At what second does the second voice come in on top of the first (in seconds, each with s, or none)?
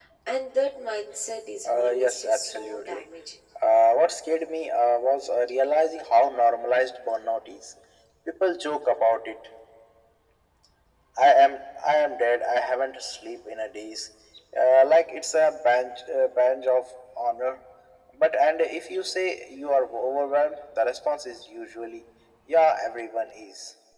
1.6 s